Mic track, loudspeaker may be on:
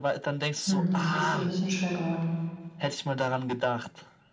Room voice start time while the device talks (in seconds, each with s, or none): 0.6 s